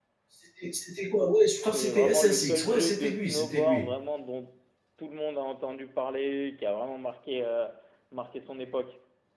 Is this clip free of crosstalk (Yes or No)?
No